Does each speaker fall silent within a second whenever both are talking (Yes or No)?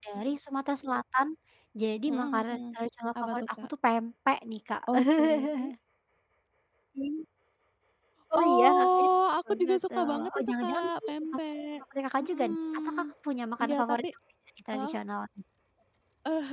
No